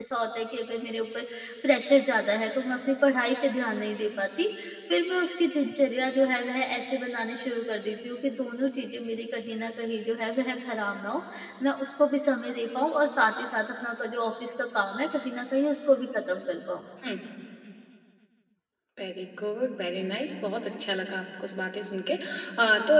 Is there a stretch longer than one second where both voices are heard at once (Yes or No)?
No